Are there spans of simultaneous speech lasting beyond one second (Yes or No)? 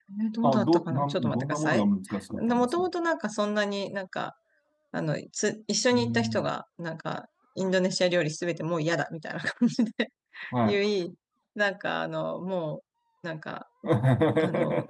Yes